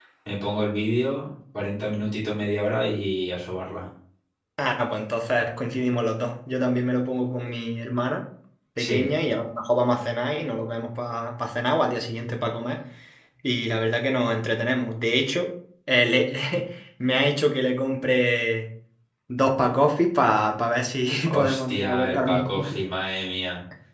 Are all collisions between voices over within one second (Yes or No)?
No